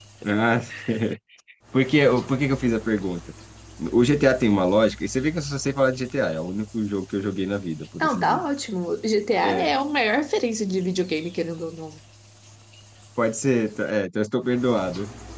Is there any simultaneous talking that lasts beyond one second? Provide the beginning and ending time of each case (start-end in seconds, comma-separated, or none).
none